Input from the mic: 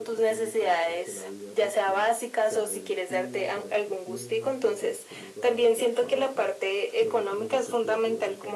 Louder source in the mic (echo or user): echo